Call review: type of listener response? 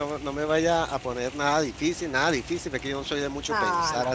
taking over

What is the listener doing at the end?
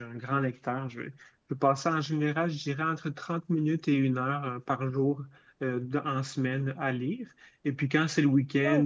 listening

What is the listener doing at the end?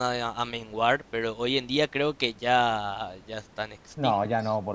taking over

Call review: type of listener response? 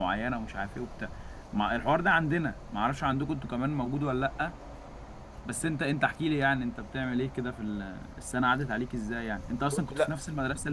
listening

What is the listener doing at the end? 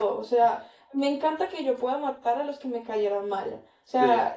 listening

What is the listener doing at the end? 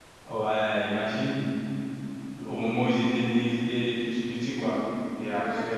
listening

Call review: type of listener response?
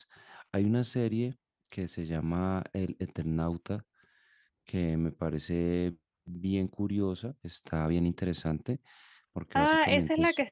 taking over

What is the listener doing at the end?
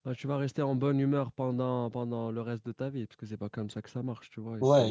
taking over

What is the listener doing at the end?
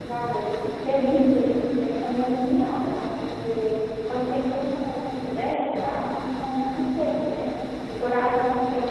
listening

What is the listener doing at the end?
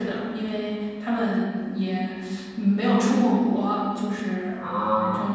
taking over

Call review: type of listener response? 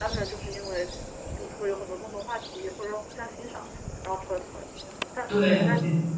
listening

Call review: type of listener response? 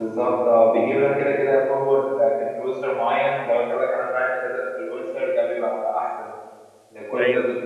listening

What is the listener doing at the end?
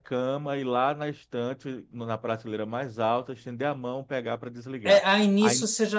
taking over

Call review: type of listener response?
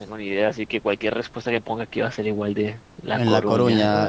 taking over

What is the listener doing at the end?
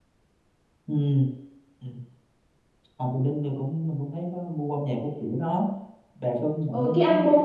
taking over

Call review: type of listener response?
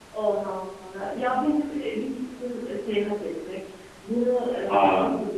listening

